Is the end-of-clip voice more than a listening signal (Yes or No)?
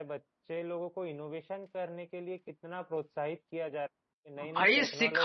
Yes